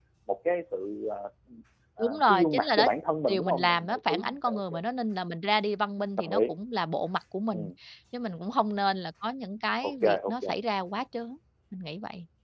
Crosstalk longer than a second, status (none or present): present